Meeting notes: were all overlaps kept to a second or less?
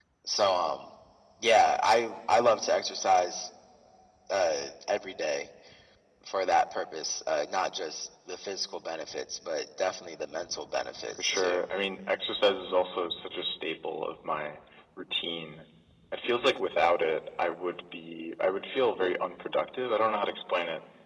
Yes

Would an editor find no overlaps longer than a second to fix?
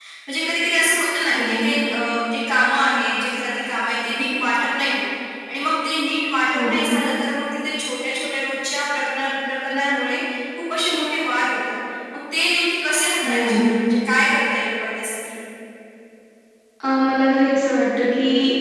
Yes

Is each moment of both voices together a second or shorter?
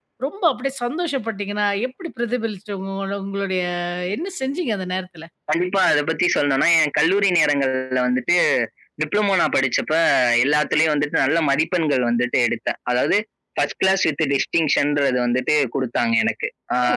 Yes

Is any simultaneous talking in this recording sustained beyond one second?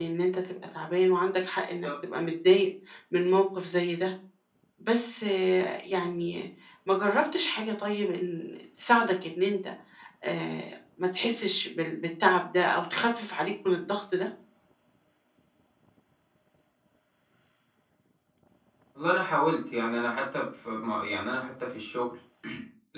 No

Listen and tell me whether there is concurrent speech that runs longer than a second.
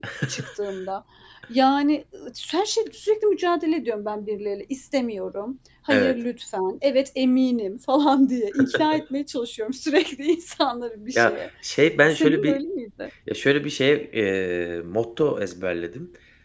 No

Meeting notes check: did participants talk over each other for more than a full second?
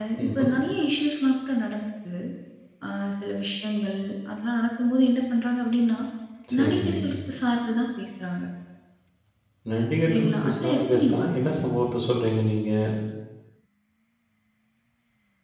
Yes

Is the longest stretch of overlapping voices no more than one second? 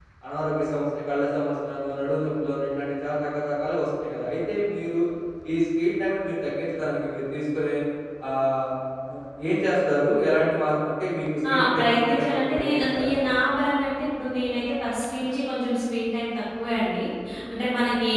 No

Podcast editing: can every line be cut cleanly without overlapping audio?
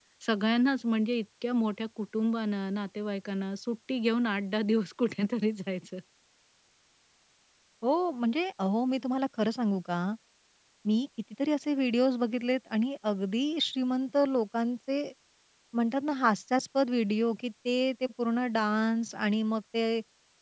Yes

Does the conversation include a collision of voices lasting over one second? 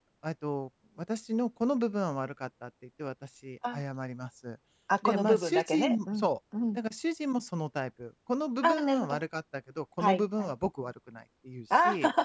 Yes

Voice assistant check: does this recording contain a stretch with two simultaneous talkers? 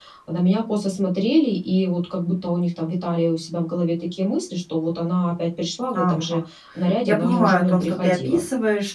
Yes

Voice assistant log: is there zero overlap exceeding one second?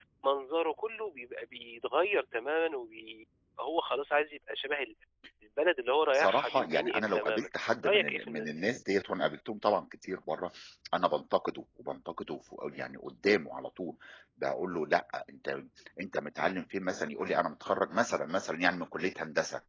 No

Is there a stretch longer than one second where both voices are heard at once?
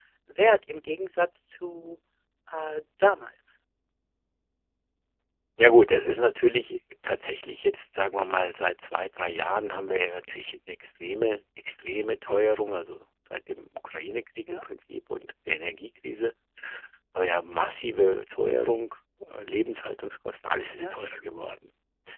No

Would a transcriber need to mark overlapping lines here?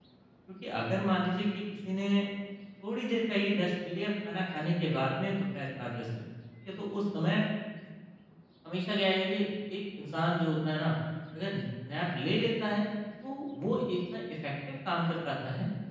No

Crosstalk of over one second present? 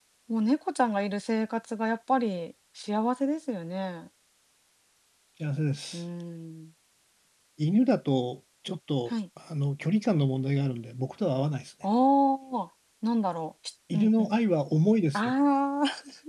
No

